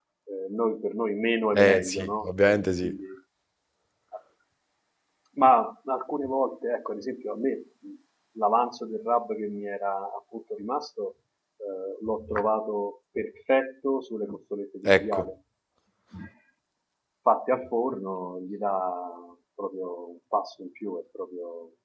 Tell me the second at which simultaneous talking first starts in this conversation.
1.6 s

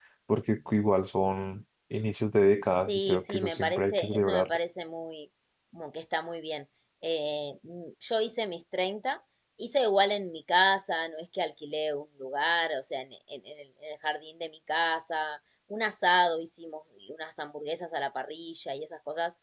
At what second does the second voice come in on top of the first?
2.9 s

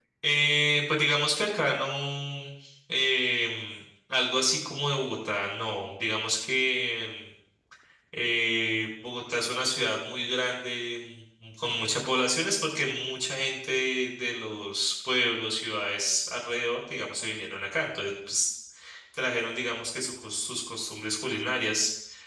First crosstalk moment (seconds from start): none

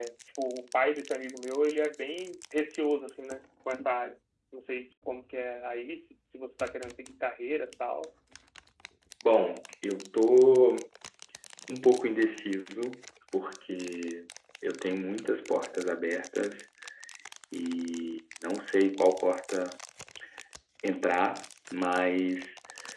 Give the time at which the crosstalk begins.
none

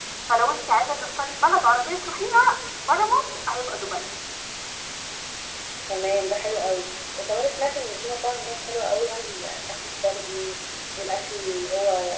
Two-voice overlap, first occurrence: none

